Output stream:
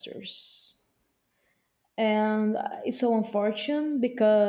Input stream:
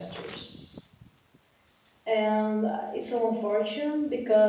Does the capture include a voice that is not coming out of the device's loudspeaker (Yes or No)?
No